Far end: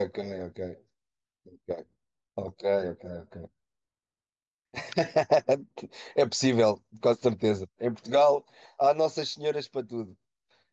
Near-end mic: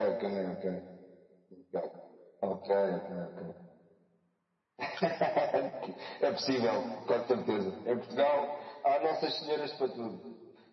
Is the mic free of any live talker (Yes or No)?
Yes